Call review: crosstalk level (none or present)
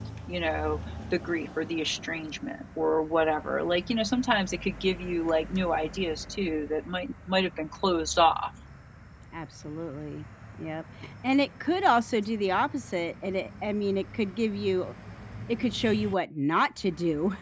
none